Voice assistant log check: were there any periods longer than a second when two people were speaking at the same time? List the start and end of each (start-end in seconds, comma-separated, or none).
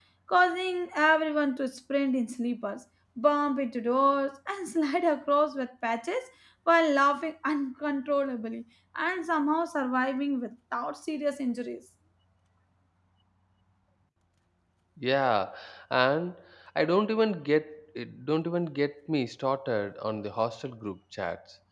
none